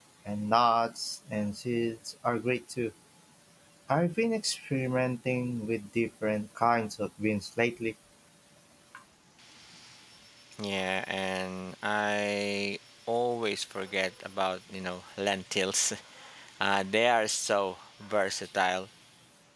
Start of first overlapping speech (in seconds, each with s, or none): none